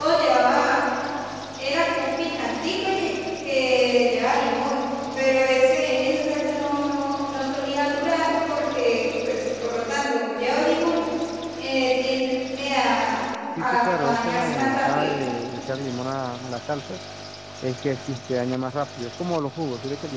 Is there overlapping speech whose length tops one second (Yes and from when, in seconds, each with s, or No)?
Yes, from 13.6 s